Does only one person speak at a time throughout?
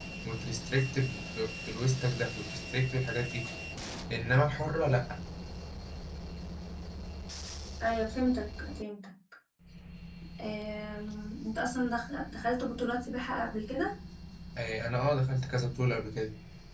Yes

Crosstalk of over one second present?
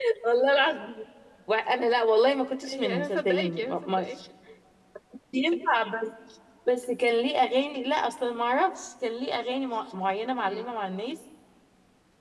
Yes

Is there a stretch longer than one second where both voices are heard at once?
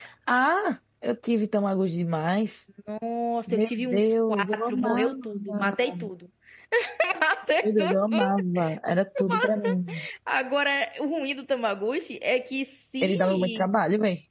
Yes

